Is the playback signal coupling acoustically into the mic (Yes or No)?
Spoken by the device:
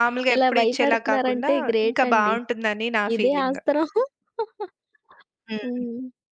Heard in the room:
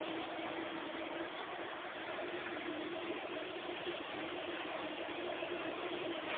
No